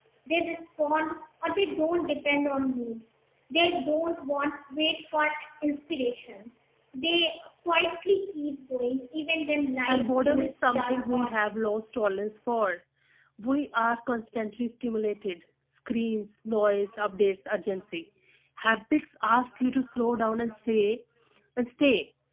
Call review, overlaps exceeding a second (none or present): present